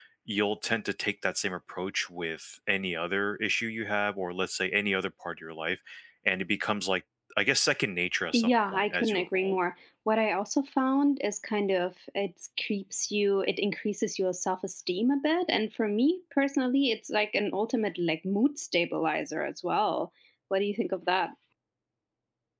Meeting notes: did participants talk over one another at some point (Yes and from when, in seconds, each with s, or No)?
Yes, from 8.3 s